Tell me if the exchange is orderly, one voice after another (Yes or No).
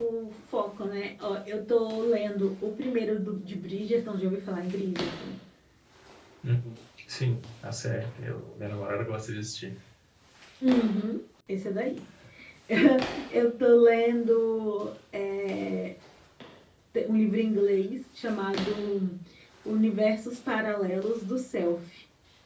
Yes